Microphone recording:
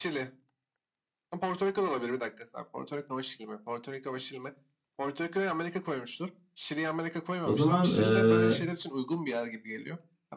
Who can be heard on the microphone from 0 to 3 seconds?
echo only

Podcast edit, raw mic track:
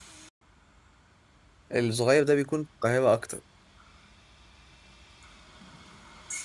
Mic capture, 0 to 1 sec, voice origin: neither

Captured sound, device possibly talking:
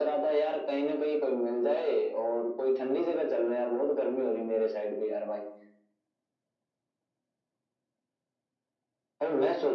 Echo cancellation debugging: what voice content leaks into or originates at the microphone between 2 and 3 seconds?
echo only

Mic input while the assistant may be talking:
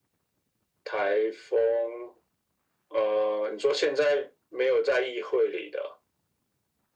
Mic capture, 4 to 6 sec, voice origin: echo only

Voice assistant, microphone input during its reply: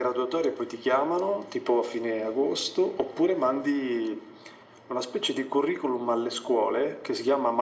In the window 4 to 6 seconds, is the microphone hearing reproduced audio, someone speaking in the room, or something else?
echo only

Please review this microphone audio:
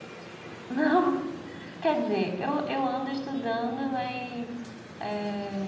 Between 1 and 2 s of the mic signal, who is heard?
user only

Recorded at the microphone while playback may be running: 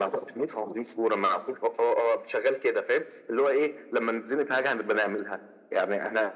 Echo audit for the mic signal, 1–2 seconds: echo only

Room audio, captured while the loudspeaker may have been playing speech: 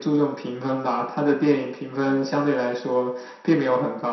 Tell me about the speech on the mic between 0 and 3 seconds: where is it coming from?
echo only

